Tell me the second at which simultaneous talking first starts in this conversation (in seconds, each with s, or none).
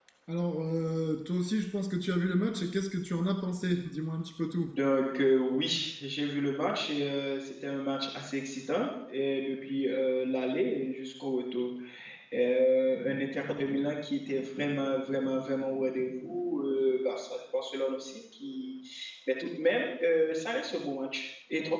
none